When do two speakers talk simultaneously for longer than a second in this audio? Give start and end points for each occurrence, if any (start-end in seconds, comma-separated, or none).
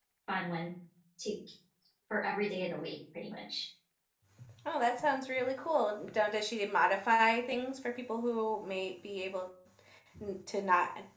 none